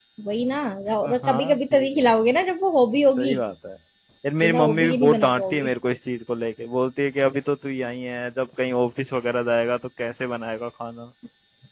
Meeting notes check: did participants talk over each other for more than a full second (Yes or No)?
Yes